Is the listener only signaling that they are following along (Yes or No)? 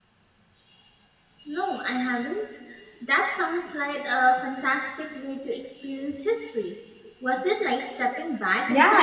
No